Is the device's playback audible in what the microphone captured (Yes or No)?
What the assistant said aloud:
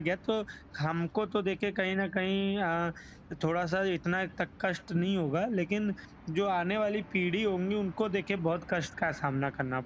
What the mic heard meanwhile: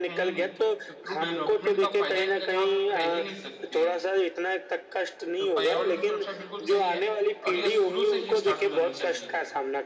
Yes